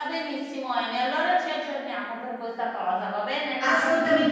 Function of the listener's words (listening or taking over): taking over